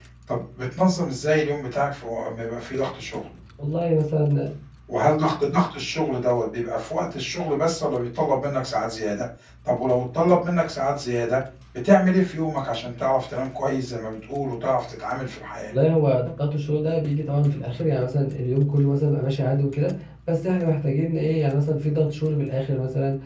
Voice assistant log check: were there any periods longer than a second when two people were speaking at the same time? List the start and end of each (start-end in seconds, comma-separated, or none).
none